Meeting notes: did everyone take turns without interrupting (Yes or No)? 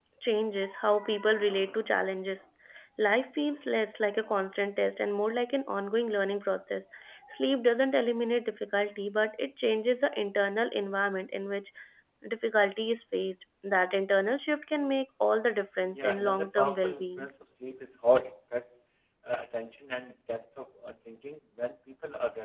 No